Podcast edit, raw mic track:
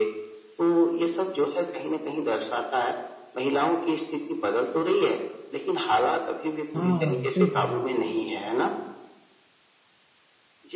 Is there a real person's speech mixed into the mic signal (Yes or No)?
Yes